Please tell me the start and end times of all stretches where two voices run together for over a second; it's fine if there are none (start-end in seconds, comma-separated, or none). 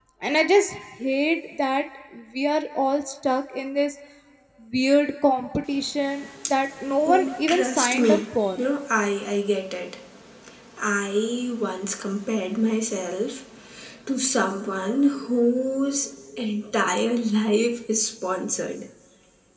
7.0-8.6